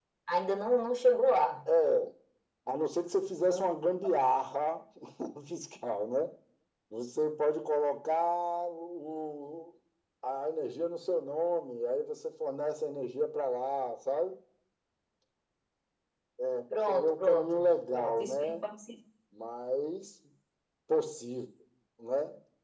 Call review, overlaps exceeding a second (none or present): present